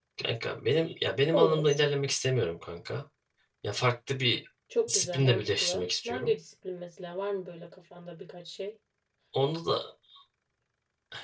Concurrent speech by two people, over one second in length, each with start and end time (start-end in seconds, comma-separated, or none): 4.9-6.3